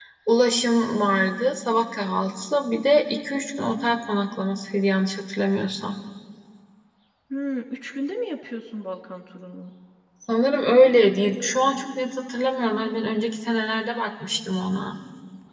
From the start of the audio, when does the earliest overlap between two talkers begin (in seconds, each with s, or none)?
none